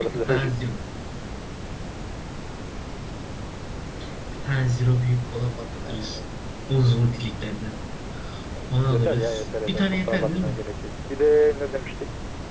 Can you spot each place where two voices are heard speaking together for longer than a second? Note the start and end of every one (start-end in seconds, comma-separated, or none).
8.7-10.6